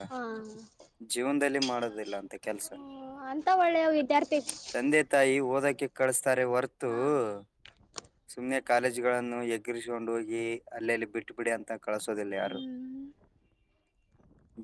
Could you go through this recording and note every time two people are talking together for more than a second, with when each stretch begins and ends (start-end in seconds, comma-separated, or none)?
none